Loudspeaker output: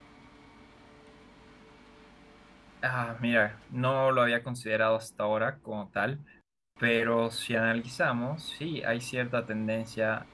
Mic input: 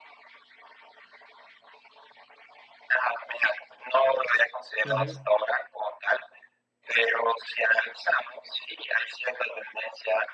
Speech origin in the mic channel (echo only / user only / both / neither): both